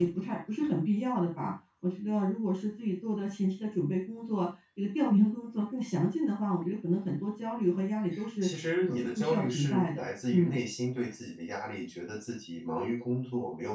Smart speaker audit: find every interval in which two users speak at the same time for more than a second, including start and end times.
8.9-10.6

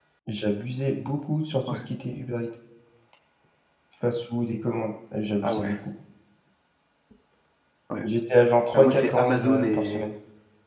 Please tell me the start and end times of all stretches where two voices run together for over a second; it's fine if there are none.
8.7-10.0

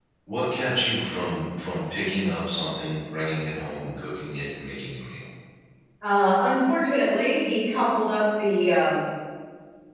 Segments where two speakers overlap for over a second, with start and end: none

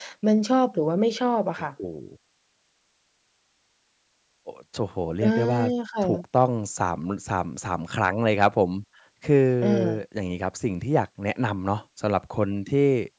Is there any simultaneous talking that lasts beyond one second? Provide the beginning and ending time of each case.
none

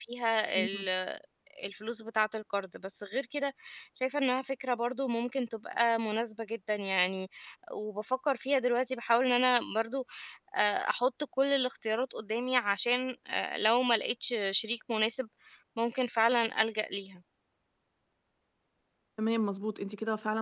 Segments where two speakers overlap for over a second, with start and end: none

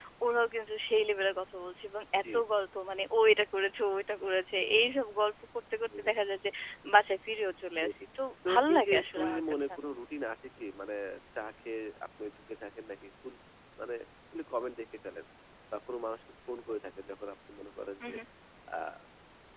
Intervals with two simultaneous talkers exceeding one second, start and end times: 8.4-9.9

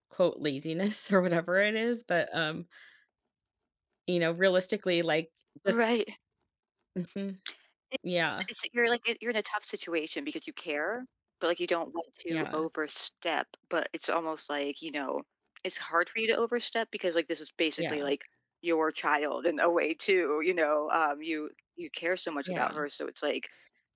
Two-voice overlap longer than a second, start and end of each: none

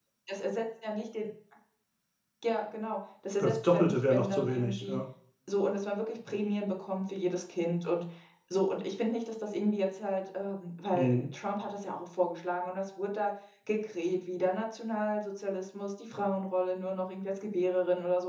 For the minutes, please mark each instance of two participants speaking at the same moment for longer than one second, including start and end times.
3.4-5.0

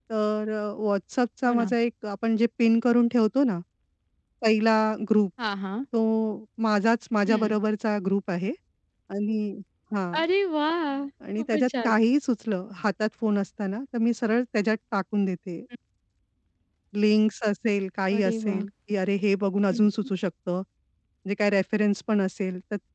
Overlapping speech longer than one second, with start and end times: none

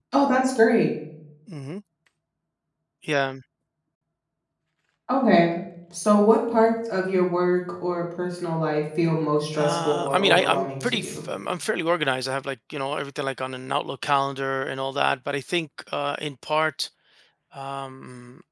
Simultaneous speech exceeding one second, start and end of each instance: 9.6-11.2

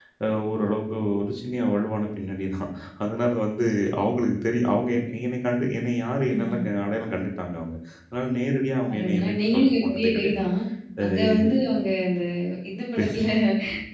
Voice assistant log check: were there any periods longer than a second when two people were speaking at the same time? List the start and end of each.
8.9-10.4

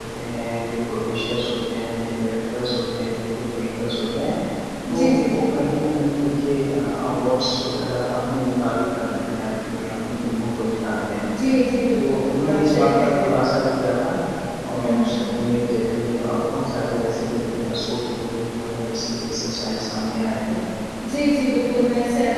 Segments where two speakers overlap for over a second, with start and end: 11.9-13.3

